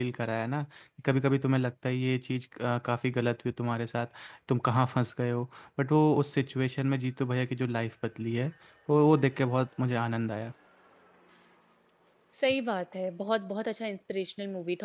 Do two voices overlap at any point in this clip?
No

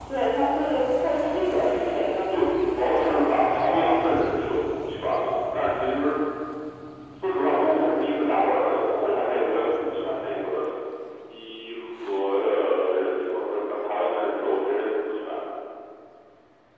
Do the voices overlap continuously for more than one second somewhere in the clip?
No

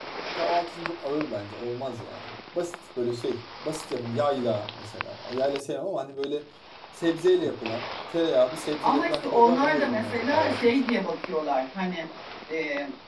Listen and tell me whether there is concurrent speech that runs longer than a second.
Yes, from 8.8 s

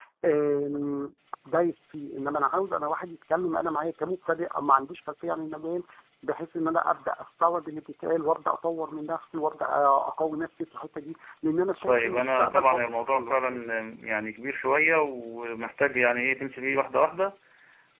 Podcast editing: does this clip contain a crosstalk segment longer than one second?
Yes, from 11.9 s

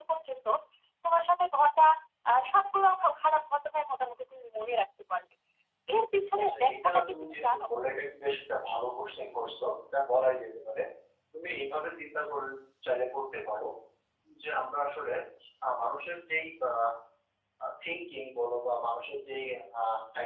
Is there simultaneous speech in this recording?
Yes, from 6.4 s

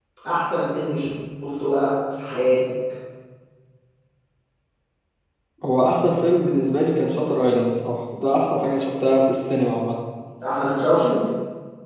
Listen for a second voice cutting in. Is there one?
No

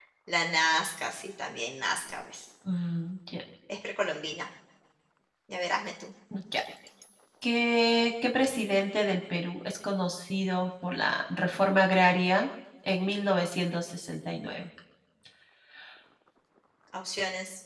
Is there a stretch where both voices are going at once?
No

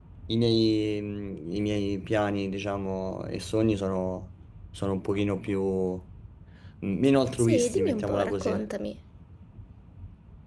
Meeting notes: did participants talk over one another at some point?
Yes, from 7.4 s

